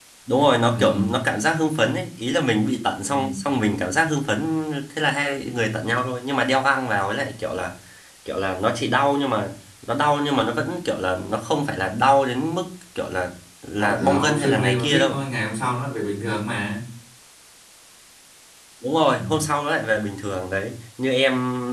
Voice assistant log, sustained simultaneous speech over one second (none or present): present